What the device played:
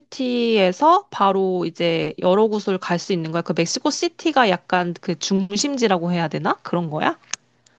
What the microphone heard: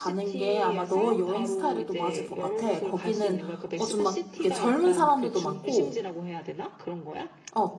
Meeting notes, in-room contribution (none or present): present